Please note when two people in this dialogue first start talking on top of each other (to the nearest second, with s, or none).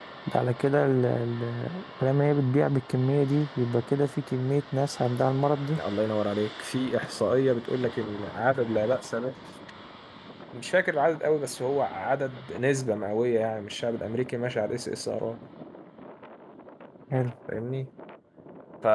none